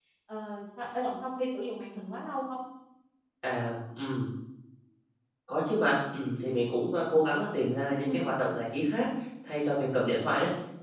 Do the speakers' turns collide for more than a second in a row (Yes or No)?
No